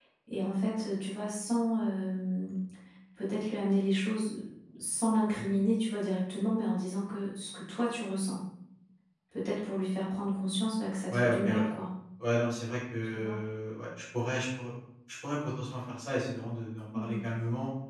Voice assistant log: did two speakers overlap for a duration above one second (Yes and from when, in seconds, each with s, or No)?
No